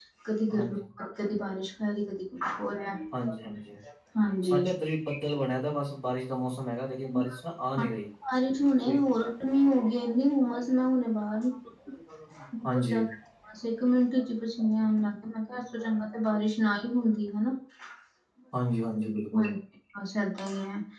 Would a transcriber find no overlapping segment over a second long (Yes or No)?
Yes